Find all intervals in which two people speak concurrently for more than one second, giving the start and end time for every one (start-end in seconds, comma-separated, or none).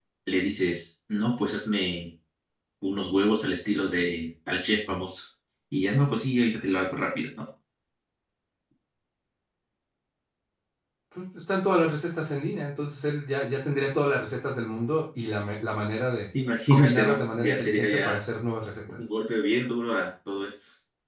16.7-18.2